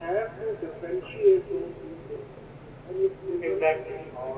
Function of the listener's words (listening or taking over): listening